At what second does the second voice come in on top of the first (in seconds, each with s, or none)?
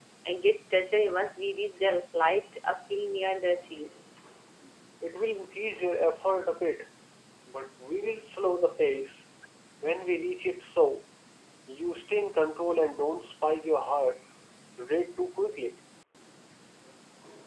none